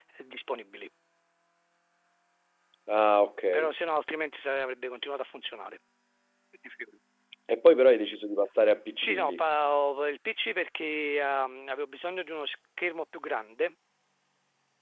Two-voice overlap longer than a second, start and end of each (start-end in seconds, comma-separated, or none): none